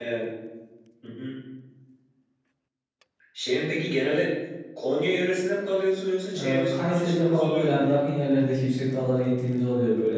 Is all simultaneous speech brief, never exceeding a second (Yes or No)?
No